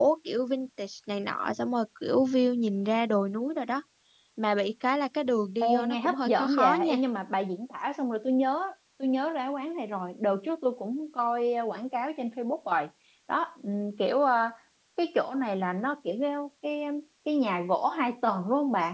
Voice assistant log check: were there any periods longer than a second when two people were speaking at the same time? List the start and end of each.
5.6-7.0

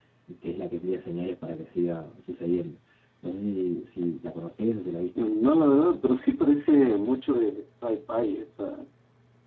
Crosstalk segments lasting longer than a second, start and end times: none

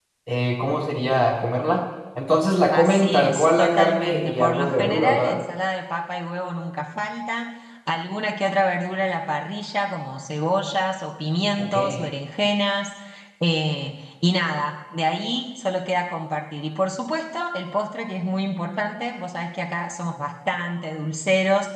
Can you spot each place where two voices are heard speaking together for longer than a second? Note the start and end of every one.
2.7-5.4

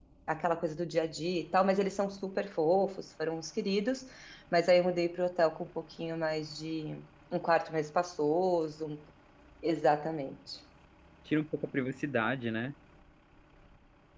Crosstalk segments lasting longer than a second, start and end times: none

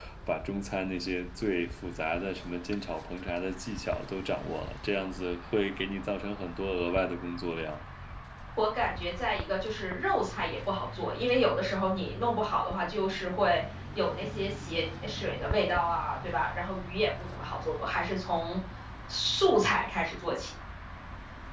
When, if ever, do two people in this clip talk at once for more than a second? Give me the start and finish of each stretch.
none

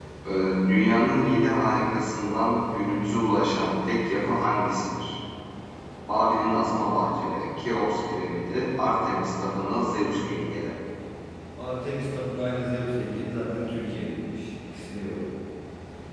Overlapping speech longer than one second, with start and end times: none

